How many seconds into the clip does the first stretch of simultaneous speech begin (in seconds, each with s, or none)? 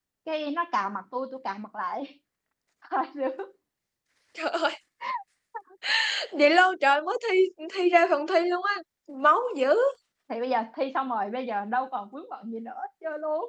none